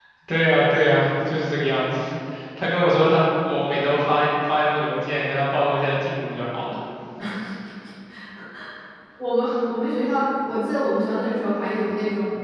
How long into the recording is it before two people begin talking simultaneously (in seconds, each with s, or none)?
none